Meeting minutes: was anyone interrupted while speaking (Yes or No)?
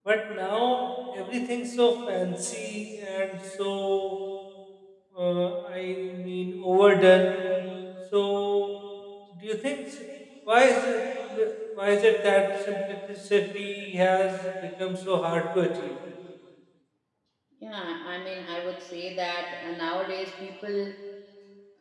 No